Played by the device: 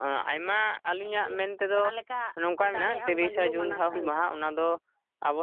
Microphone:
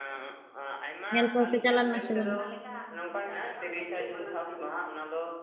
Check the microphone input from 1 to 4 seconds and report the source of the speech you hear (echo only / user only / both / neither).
both